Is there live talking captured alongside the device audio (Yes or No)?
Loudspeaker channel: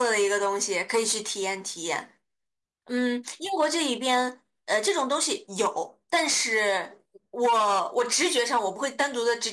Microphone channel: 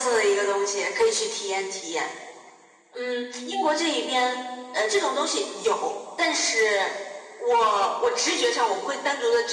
No